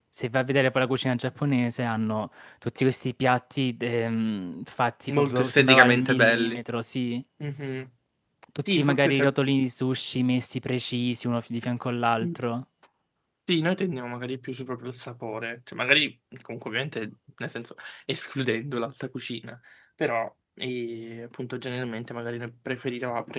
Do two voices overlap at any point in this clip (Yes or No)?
Yes